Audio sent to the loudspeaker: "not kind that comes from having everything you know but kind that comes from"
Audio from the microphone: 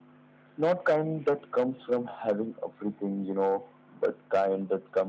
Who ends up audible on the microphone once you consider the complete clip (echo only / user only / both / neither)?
echo only